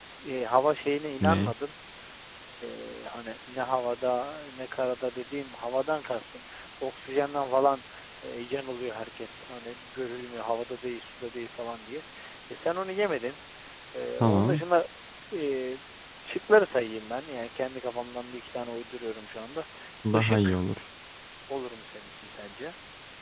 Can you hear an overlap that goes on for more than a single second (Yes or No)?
No